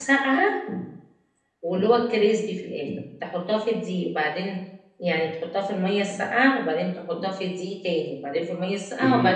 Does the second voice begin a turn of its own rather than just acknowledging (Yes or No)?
Yes